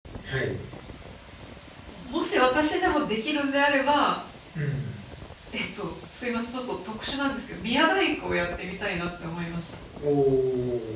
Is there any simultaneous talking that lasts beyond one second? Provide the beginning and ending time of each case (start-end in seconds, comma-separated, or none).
none